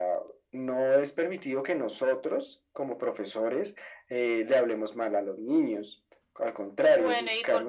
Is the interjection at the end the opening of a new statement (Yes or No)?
Yes